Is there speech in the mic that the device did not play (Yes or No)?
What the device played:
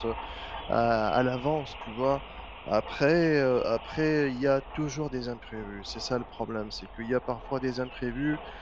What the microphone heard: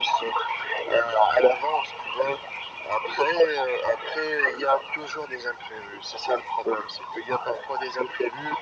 No